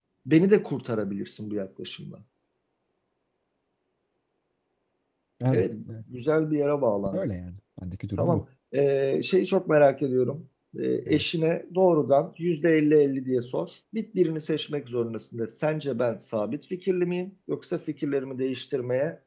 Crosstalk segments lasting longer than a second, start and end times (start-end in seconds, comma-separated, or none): none